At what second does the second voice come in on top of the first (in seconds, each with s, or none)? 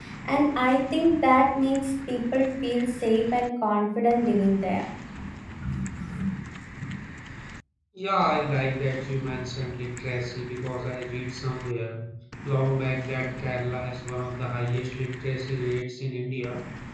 none